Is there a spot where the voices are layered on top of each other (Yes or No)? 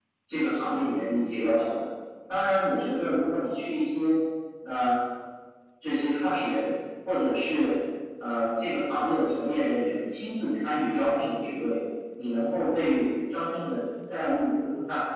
No